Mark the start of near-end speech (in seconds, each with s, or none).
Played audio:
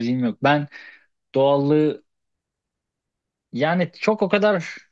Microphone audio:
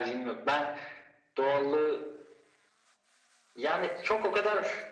none